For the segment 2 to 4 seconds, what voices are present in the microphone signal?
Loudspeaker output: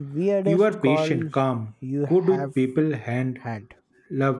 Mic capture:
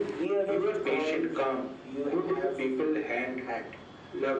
echo only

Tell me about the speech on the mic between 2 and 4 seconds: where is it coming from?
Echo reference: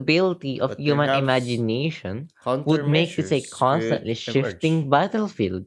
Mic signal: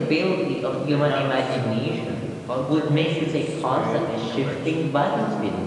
echo only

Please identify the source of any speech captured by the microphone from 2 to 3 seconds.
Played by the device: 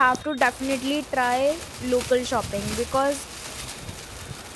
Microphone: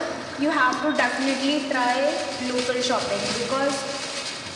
echo only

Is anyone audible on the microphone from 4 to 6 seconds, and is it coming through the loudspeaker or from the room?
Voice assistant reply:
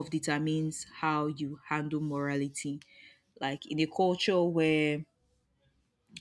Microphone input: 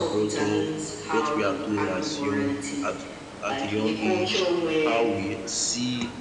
both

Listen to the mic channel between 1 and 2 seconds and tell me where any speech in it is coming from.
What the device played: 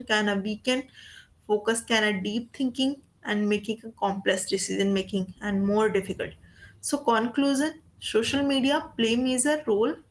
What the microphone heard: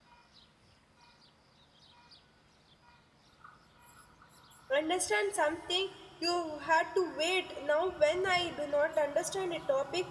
neither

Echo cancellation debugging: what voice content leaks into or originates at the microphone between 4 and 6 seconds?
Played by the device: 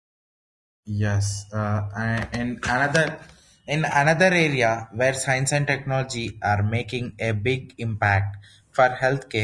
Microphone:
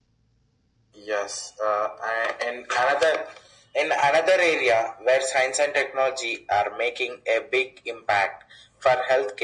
echo only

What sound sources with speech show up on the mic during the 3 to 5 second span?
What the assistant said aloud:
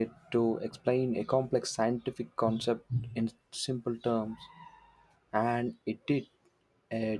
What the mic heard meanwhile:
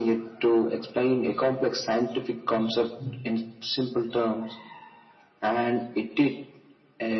echo only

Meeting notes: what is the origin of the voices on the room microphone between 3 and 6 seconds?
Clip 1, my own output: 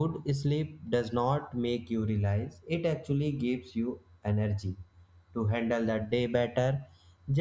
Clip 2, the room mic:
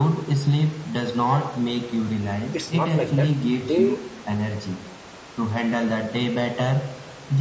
both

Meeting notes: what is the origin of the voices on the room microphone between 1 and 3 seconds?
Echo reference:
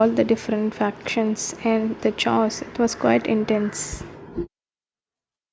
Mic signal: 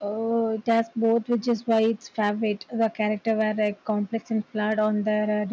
user only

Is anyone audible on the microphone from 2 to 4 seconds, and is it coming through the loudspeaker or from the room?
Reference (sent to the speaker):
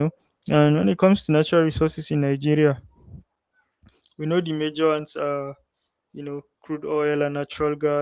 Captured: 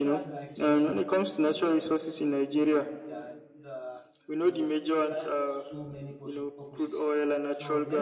both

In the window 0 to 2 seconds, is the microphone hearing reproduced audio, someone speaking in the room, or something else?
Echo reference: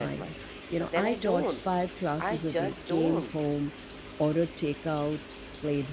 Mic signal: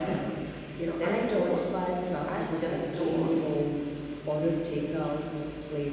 echo only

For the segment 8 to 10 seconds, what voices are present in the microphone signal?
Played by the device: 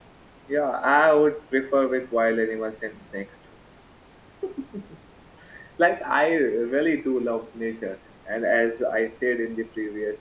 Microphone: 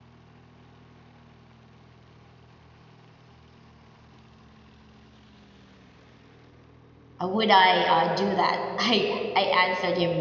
user only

